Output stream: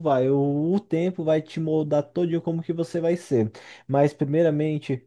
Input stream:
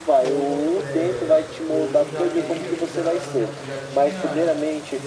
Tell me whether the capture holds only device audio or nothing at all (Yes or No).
No